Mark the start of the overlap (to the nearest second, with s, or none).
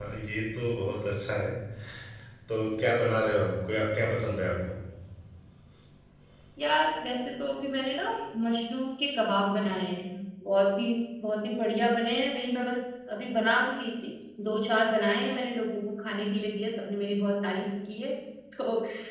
none